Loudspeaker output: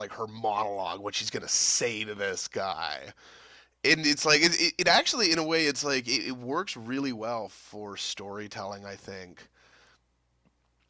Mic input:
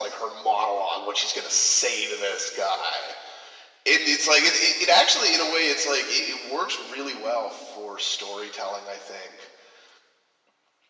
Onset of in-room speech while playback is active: none

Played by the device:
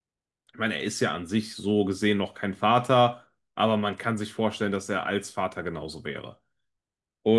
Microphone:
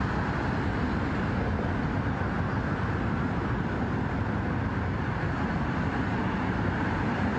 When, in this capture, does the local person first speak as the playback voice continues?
none

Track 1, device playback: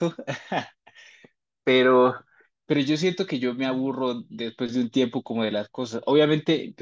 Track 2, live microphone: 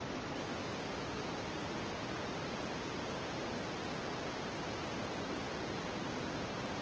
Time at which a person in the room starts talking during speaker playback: none

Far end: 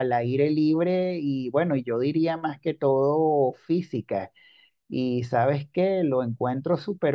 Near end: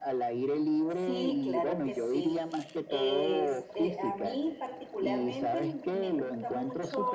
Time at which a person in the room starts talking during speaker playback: 0.8 s

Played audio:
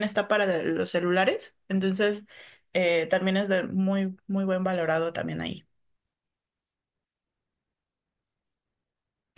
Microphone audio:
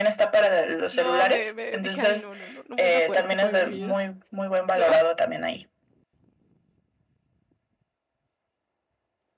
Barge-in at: 0.9 s

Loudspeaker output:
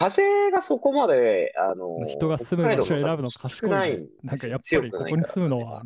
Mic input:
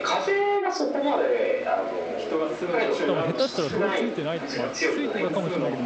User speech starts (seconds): 3.0 s

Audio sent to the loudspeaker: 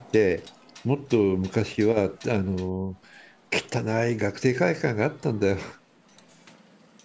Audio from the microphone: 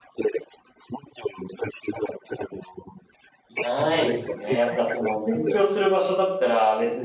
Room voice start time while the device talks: 3.5 s

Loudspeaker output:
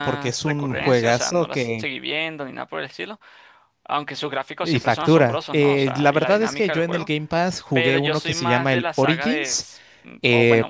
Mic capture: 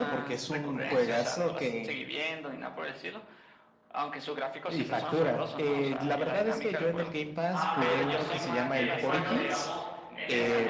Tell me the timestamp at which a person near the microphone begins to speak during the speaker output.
7.5 s

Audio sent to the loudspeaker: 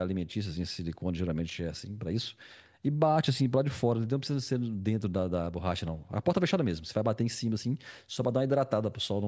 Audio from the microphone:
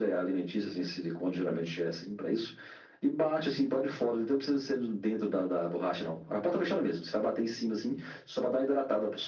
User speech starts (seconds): none

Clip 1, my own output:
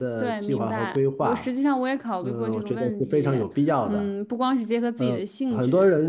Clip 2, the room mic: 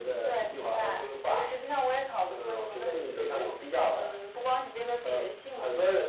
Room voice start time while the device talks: 2.9 s

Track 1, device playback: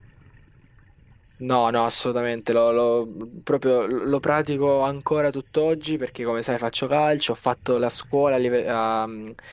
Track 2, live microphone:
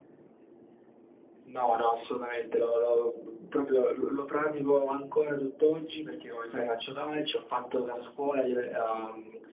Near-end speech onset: none

